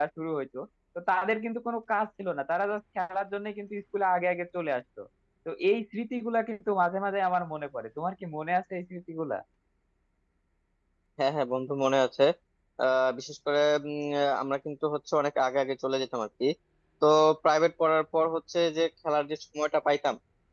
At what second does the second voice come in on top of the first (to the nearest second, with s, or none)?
none